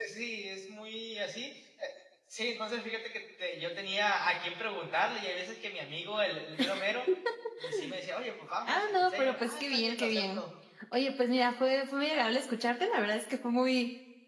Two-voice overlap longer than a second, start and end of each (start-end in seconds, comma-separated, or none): 8.7-10.4